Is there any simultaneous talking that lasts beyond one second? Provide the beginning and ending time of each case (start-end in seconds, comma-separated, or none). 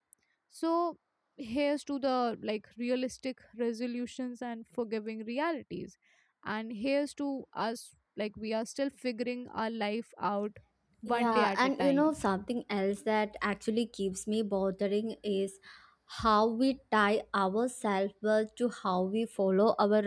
11.1-12.4